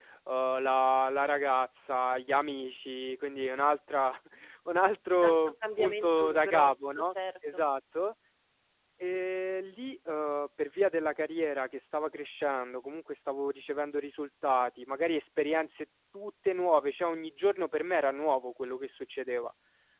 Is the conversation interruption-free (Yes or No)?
No